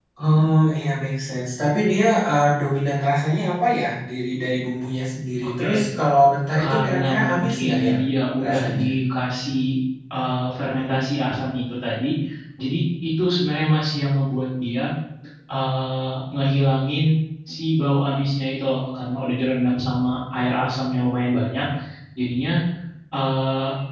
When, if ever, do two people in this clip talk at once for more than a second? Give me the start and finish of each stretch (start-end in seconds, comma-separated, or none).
6.6-8.0